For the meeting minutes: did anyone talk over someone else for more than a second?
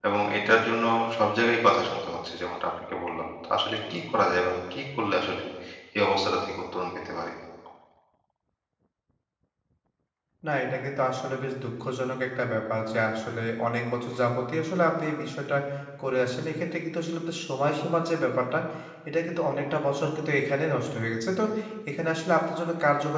No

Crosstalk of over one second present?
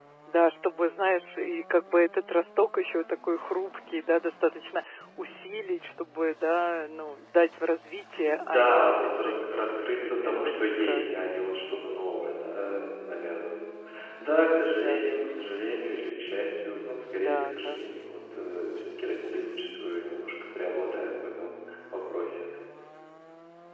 Yes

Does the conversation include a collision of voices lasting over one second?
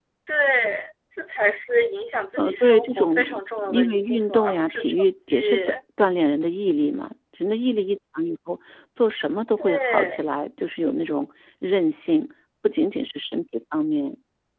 Yes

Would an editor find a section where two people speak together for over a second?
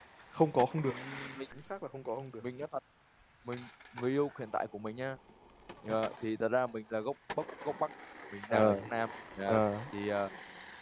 No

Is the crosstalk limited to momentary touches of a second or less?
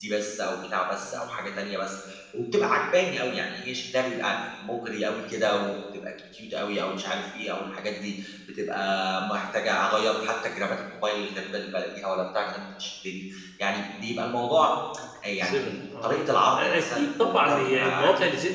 No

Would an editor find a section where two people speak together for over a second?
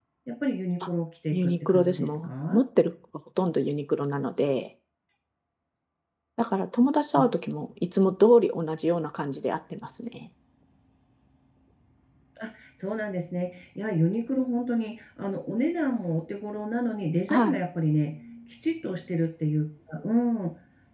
Yes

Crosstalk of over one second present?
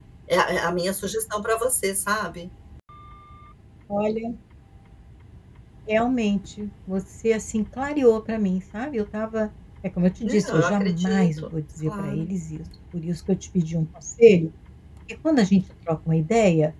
Yes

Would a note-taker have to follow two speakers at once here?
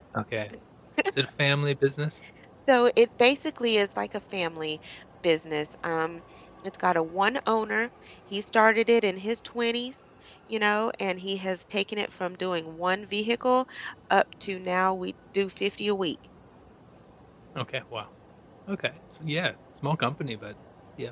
No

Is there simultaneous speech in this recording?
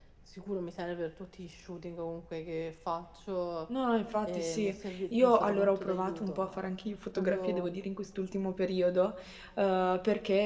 Yes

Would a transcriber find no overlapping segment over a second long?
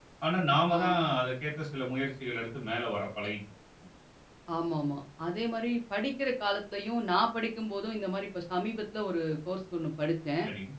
Yes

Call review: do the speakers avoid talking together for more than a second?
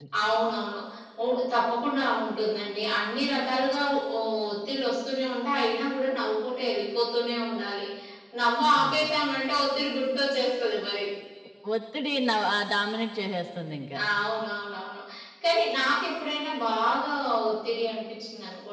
Yes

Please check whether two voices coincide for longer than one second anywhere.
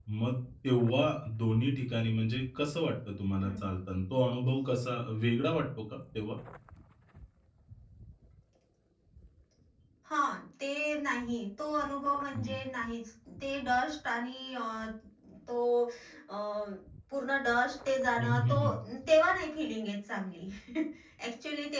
No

